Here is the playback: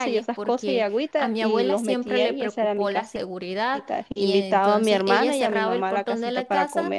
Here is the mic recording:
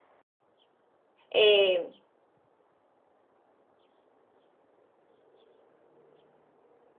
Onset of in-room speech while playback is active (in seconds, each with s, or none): 1.3 s